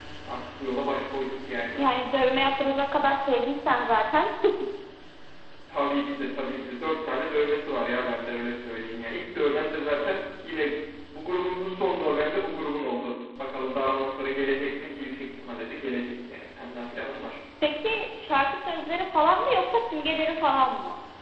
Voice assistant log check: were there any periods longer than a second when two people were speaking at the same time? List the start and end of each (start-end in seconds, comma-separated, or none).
none